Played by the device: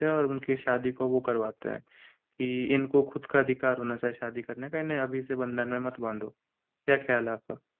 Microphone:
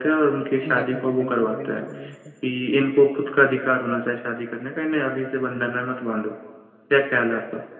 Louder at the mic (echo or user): echo